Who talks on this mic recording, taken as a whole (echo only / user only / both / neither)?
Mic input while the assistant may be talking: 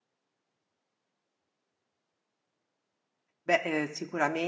user only